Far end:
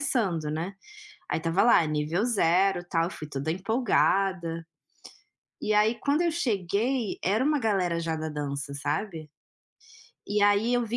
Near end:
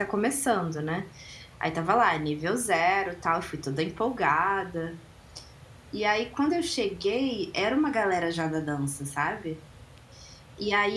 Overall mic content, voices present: echo only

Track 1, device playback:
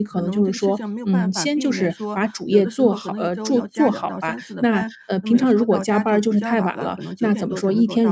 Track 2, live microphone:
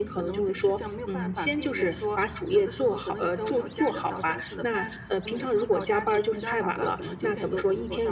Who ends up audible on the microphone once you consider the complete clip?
echo only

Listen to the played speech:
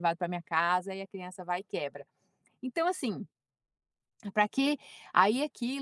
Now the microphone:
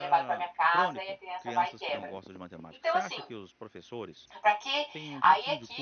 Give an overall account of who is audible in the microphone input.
both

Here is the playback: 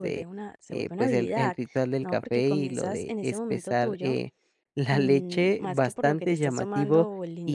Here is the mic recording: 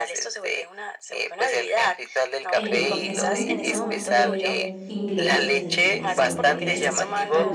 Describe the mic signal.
both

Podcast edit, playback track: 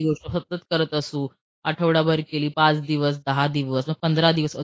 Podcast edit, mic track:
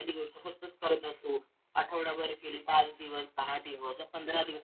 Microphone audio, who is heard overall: echo only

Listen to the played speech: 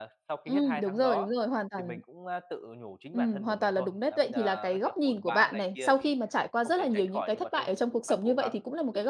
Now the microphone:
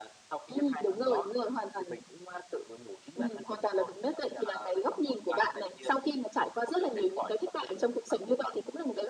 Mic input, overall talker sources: echo only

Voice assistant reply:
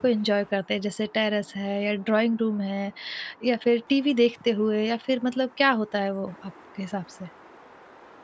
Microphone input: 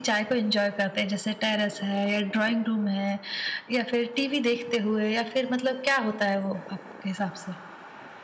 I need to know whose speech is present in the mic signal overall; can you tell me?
echo only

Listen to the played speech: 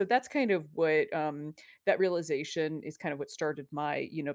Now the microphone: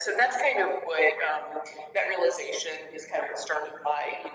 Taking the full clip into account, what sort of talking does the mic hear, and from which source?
echo only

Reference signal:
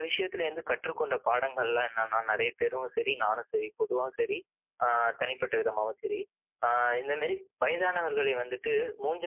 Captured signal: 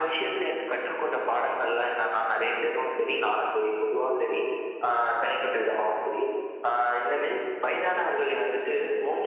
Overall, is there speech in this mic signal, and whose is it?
echo only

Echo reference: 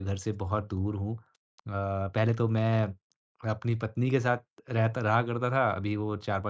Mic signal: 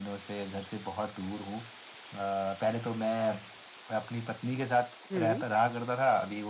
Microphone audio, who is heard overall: both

